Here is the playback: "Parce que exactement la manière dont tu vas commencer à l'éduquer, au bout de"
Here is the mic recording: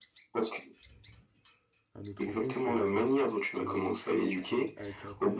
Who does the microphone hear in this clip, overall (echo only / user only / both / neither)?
both